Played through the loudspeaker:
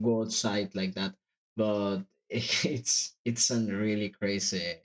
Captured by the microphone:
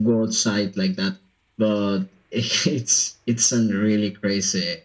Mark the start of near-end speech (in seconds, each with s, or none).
none